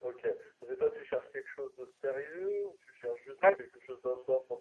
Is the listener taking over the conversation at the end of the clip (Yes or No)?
No